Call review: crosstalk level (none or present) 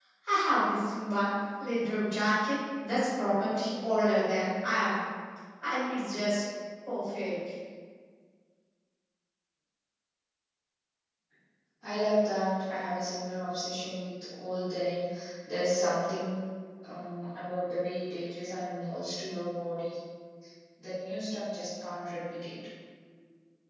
none